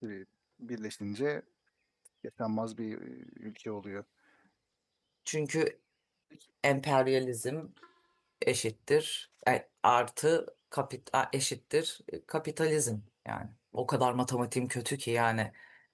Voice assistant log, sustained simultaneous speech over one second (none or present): none